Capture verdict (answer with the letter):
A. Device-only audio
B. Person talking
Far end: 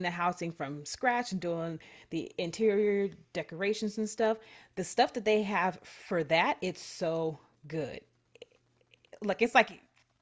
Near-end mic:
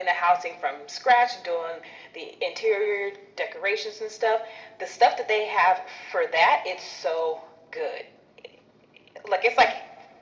A